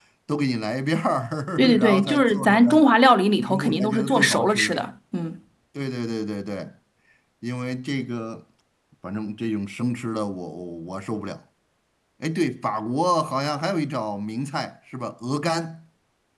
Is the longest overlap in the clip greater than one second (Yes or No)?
Yes